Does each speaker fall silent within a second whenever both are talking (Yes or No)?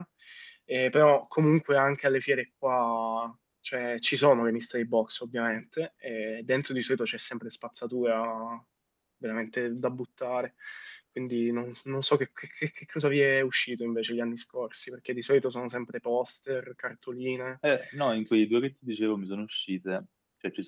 Yes